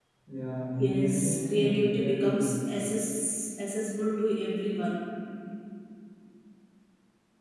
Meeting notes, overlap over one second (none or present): present